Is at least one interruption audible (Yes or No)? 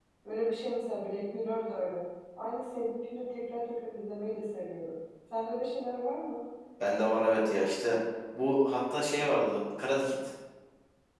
No